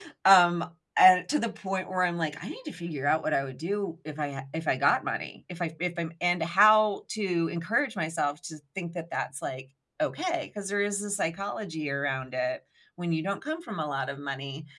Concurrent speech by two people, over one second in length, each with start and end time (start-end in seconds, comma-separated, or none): none